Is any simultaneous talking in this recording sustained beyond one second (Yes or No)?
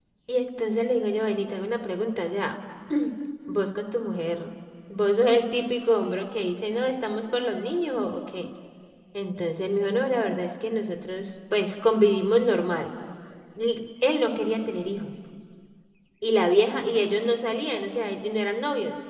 No